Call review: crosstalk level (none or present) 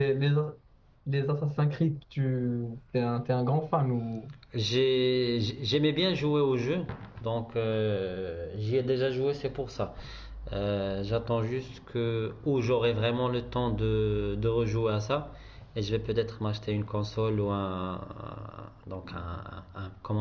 none